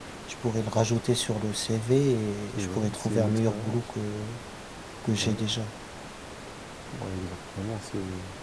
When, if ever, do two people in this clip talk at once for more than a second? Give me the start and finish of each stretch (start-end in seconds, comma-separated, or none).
2.6-3.8